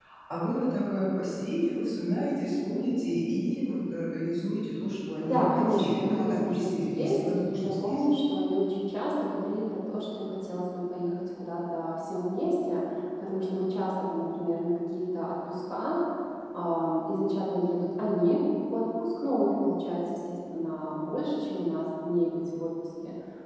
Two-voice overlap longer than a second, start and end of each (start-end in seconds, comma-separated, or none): 5.2-8.0